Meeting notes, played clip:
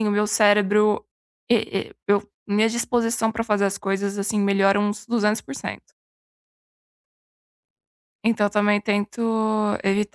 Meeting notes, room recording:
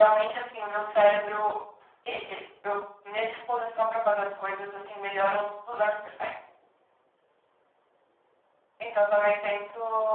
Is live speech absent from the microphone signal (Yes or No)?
Yes